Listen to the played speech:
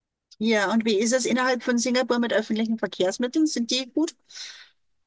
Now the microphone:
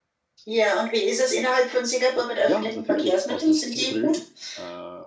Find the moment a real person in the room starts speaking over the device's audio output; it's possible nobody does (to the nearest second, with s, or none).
2 s